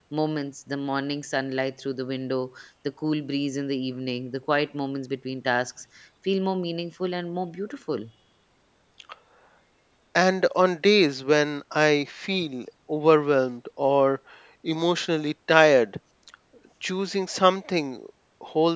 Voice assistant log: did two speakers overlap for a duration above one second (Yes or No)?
No